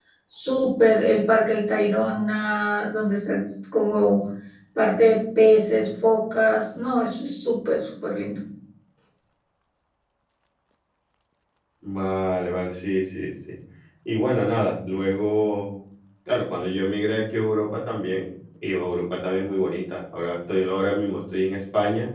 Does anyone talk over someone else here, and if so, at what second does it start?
none

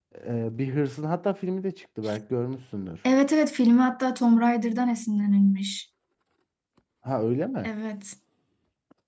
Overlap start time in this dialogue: none

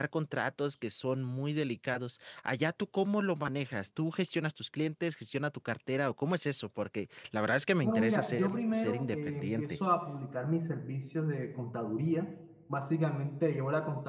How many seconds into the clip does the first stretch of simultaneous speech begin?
7.8 s

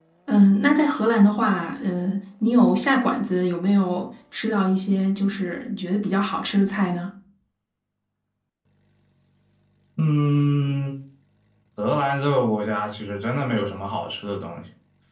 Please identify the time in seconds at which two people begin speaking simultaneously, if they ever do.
none

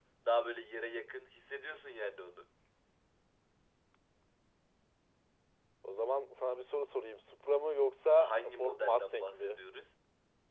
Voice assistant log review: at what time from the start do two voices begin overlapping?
8.2 s

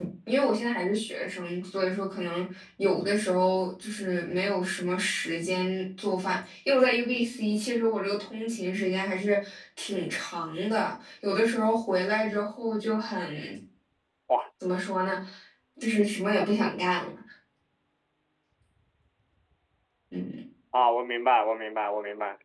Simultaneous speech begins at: none

